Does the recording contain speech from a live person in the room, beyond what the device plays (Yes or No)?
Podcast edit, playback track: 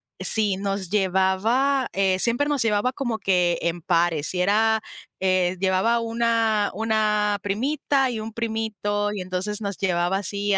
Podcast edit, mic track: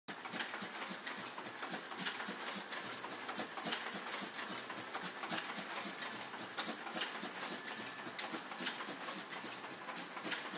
No